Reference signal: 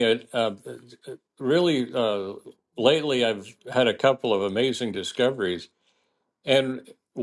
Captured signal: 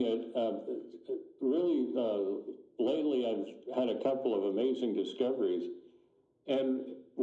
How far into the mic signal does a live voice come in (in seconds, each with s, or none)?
none